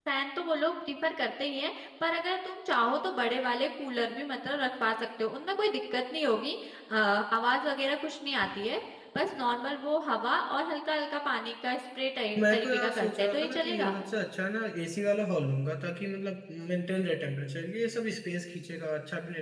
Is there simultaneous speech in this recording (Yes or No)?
Yes